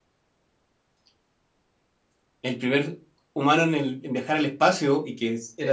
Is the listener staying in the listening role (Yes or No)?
Yes